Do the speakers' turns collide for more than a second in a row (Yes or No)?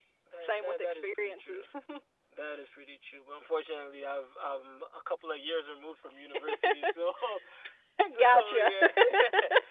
Yes